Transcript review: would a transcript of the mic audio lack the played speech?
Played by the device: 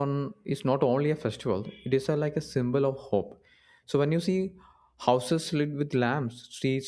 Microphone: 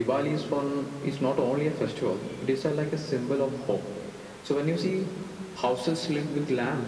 No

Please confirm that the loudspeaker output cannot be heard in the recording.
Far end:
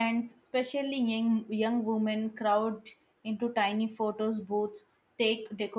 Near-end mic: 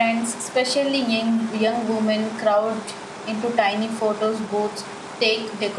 No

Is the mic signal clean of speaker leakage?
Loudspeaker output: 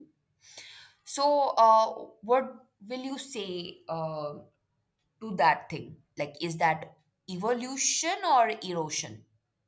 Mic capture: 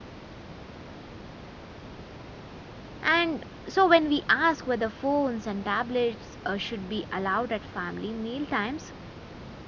Yes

